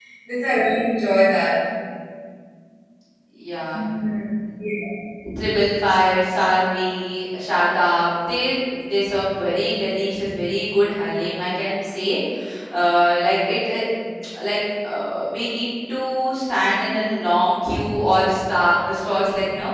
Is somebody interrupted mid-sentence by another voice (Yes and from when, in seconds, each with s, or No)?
No